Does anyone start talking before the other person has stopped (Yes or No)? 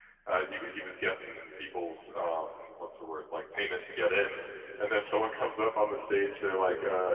No